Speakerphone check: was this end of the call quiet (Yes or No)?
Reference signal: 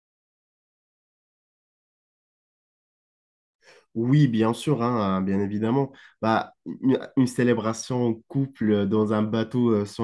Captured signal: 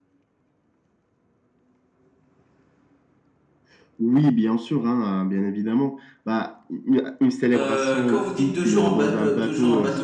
No